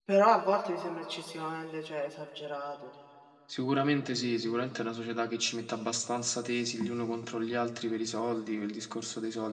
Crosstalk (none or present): none